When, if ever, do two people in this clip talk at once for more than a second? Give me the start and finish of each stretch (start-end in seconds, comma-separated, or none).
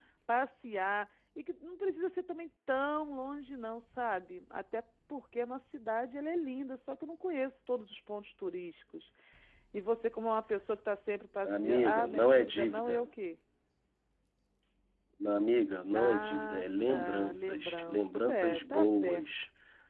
11.4-13.1, 15.9-19.2